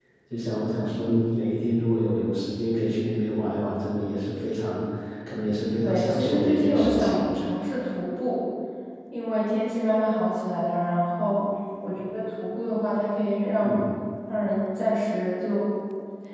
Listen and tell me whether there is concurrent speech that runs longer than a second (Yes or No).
Yes